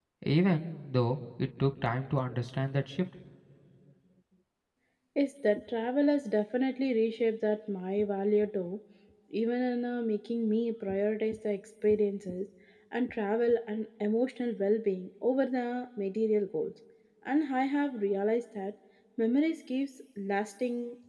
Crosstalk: none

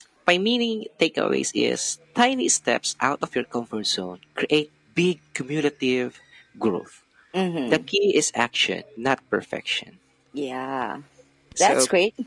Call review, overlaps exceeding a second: none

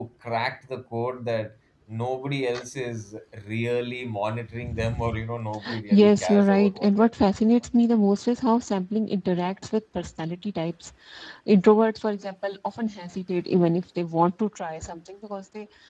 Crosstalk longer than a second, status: present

